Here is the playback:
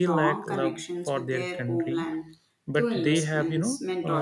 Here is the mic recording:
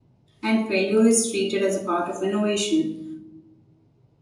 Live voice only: and failure is treated as a part of innovation,

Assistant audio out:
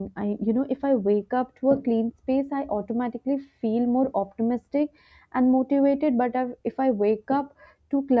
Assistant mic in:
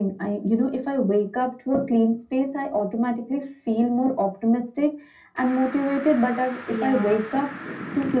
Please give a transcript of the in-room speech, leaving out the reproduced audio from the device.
Yeah,

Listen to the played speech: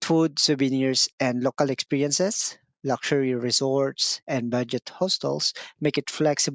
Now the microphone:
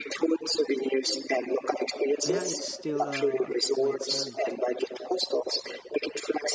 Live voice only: yeah, it's still uh white sand.

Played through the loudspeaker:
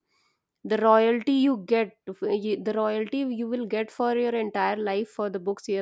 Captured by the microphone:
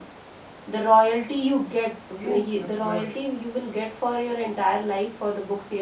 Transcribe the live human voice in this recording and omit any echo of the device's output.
yes, of course.

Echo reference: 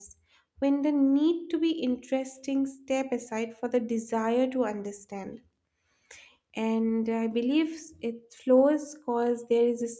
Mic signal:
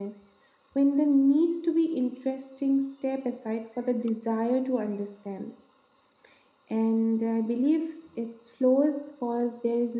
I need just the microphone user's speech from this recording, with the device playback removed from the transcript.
none

